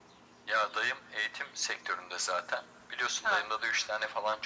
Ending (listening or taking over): listening